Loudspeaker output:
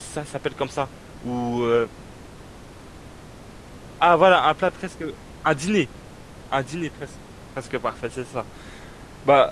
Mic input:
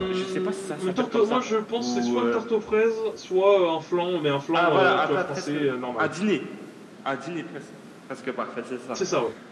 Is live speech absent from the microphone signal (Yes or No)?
No